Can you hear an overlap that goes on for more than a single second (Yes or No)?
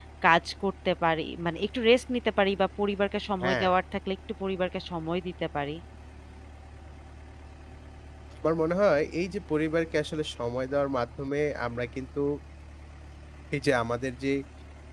No